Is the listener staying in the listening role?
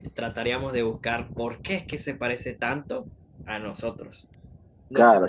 No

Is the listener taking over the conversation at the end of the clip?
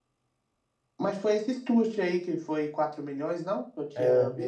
Yes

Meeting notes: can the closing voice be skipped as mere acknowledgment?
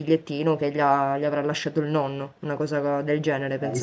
No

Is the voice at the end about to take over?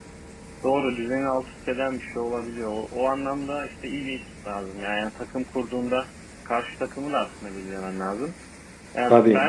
No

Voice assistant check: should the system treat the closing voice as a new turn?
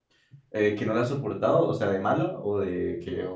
Yes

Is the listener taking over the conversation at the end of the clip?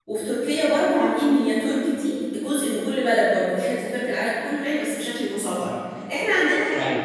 No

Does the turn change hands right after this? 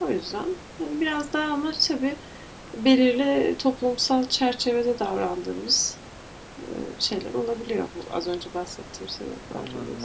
Yes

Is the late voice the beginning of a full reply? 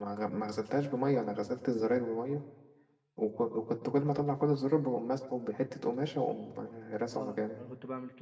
Yes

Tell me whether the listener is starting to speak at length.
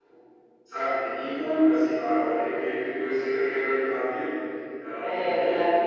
Yes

